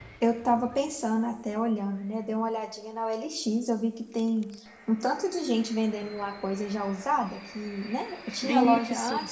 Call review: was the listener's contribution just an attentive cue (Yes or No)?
Yes